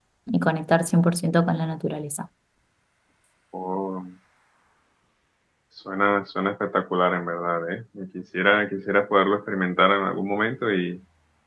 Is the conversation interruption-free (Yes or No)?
Yes